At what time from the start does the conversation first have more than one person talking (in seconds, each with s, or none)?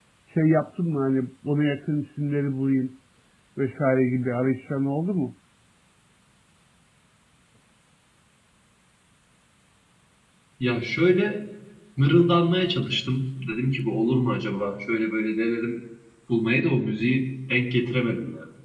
none